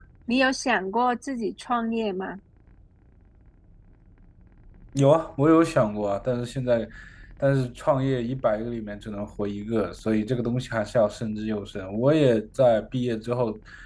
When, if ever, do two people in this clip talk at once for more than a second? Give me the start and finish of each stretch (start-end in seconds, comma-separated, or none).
none